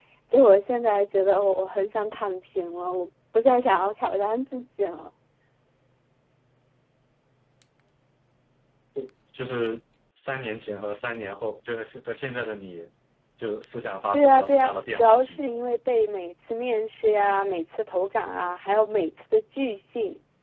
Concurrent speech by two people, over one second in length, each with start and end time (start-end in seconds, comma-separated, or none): 14.1-15.4